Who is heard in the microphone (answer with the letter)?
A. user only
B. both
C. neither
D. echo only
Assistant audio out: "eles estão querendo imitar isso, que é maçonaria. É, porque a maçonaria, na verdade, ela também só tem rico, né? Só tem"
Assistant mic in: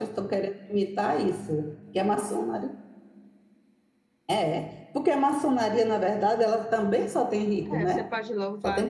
B